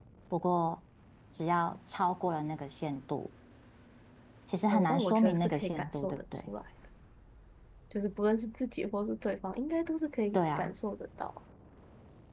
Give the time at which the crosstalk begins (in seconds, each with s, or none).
4.7 s